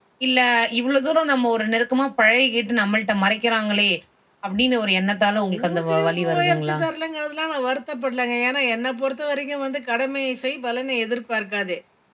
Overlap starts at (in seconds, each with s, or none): 5.3 s